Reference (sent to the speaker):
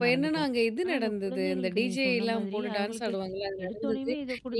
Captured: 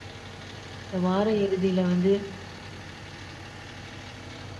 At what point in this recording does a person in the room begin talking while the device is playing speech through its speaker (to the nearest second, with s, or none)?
1 s